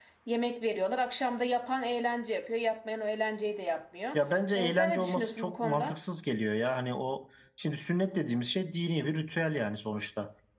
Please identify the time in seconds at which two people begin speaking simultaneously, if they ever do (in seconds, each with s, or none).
4.5 s